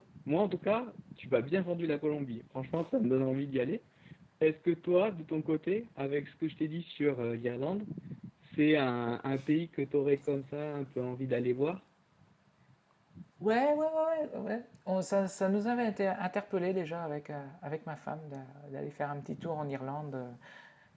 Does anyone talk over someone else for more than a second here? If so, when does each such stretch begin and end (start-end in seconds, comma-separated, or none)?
none